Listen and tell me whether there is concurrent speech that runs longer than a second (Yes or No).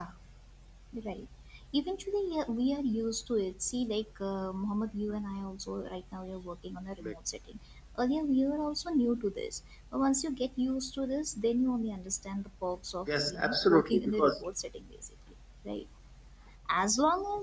Yes